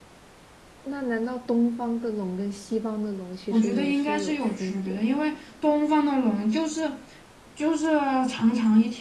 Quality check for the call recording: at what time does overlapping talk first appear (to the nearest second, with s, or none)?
4 s